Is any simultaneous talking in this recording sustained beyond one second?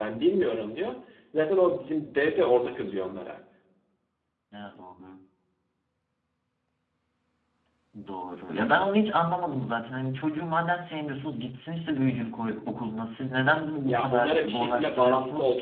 Yes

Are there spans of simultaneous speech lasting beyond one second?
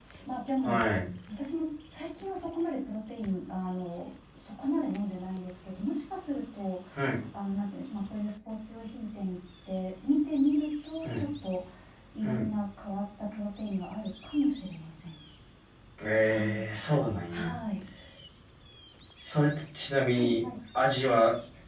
No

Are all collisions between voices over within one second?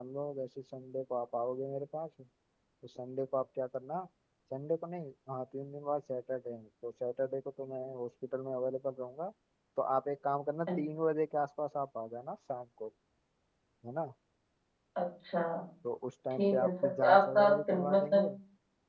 No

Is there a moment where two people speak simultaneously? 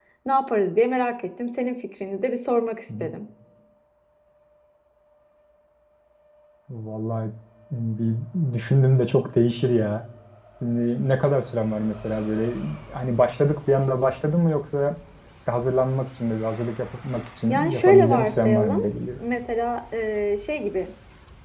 Yes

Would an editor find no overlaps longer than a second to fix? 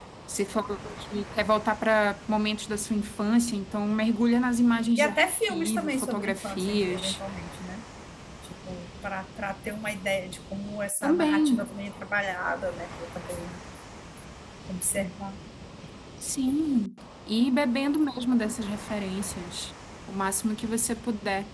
No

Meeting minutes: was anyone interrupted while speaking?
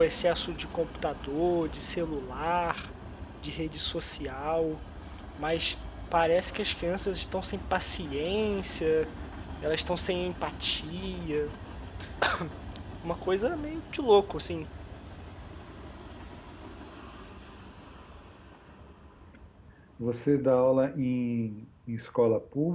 No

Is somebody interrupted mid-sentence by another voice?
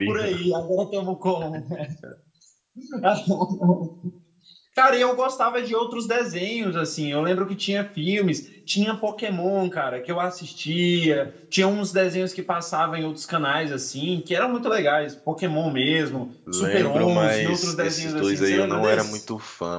Yes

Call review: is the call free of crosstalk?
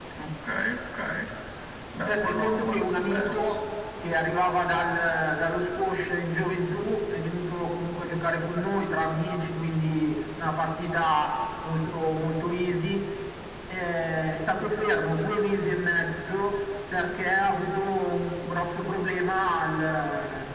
No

